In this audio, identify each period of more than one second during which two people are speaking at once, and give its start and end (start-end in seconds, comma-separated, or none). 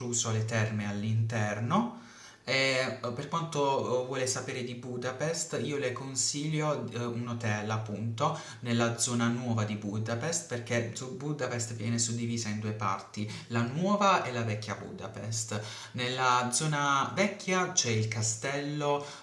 none